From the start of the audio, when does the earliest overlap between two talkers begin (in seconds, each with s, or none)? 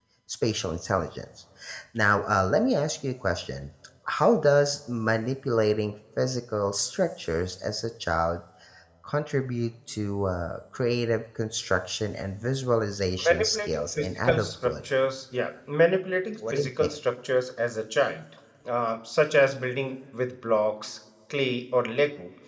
13.2 s